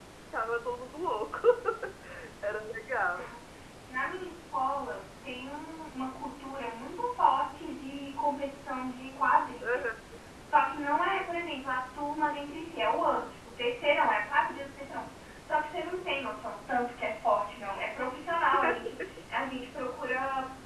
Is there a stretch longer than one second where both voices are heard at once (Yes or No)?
No